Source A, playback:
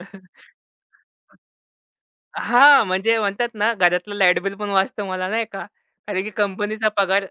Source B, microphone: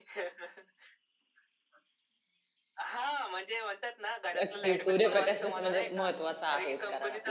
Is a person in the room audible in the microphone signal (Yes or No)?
Yes